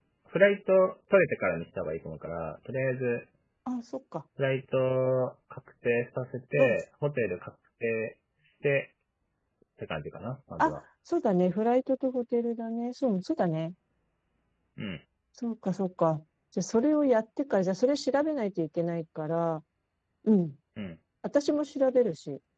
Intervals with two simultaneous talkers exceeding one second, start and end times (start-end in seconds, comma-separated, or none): none